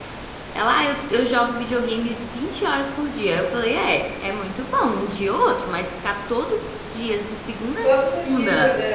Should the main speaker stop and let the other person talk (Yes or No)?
Yes